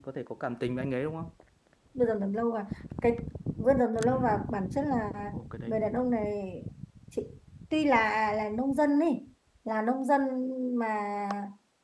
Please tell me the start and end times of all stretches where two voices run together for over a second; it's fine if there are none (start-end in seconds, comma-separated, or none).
none